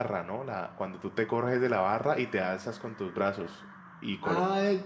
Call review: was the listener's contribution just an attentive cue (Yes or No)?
No